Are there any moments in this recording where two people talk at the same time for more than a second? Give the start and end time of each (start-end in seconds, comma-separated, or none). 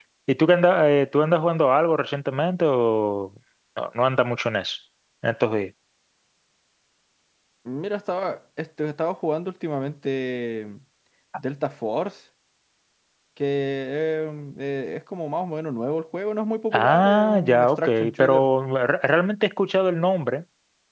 16.7-18.3